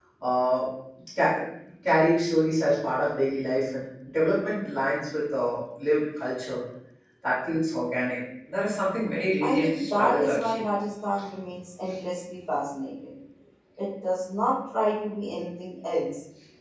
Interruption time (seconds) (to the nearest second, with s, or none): 9 s